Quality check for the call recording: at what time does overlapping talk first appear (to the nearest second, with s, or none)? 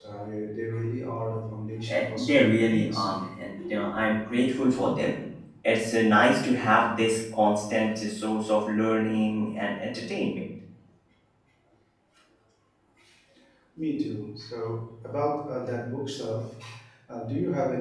2 s